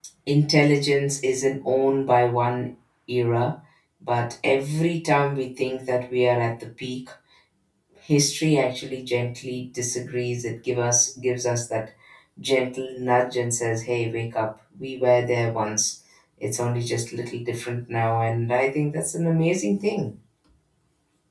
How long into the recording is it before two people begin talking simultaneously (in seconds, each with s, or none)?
none